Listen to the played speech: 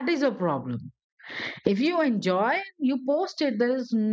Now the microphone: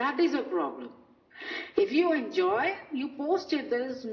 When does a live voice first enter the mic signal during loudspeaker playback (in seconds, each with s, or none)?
none